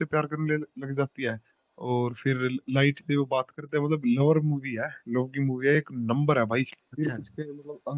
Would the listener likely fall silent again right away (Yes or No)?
Yes